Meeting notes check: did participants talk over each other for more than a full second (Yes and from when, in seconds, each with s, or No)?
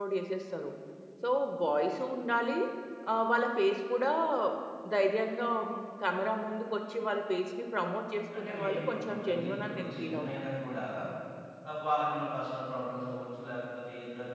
Yes, from 8.3 s